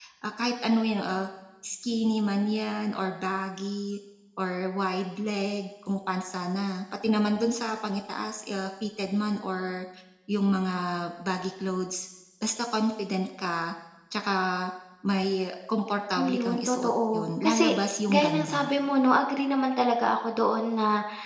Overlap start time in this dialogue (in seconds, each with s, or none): 16.2 s